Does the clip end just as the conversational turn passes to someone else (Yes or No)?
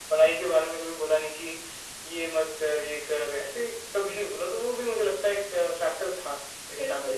Yes